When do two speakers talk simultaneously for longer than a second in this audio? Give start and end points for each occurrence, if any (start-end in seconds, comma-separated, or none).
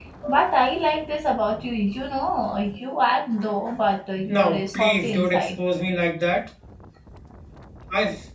4.3-5.6